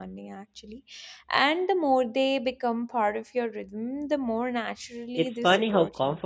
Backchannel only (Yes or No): No